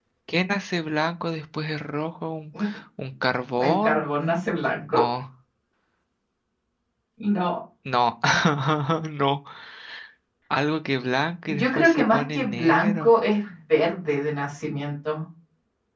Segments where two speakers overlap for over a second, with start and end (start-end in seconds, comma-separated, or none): 11.6-13.1